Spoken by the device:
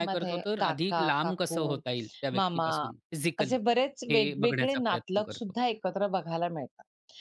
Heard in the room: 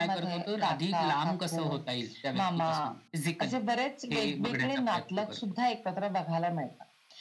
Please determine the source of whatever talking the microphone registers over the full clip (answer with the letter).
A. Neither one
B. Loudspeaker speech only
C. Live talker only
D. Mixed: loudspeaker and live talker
B